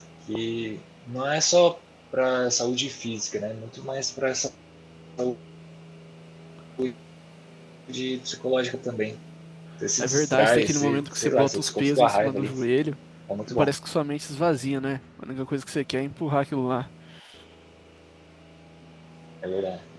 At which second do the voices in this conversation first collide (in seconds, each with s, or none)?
10.0 s